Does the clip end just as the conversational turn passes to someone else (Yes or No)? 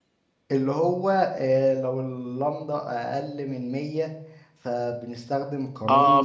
Yes